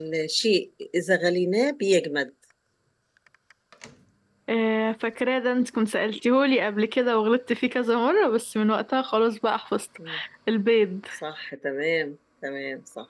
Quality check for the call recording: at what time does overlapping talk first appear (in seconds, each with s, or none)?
none